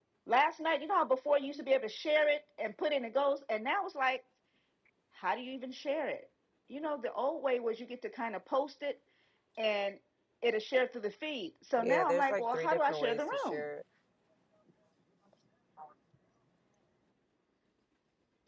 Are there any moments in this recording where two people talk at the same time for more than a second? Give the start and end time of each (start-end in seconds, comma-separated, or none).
11.8-13.6